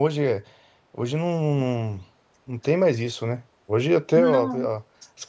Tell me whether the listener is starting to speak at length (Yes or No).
No